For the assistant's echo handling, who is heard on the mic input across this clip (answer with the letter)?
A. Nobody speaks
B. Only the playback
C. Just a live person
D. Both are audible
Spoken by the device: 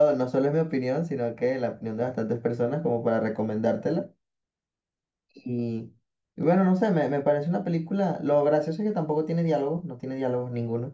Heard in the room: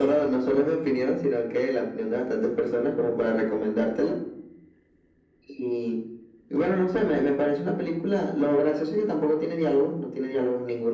B